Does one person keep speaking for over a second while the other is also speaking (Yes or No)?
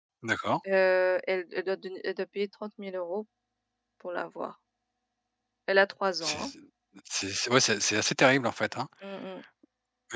No